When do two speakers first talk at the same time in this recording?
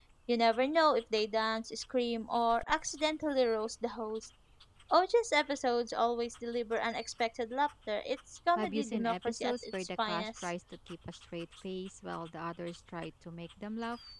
8.6 s

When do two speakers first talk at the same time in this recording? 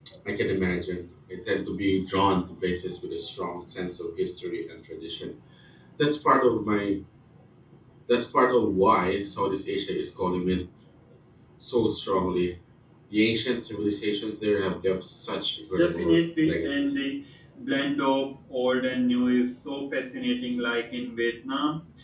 15.8 s

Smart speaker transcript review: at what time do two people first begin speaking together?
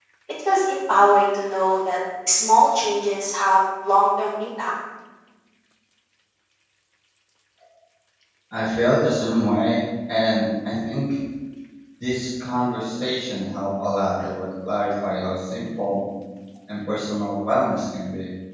none

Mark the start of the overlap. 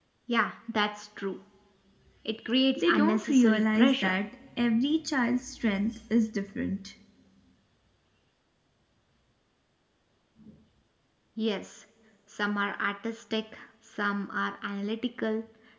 2.8 s

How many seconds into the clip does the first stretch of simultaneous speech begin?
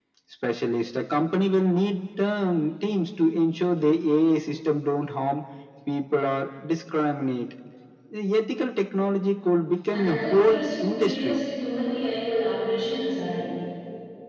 9.9 s

